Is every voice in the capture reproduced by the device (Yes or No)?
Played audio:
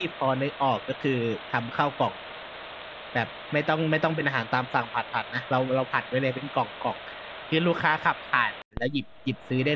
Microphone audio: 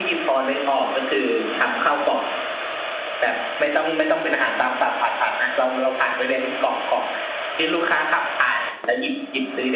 Yes